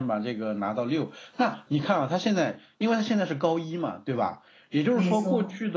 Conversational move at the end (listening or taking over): listening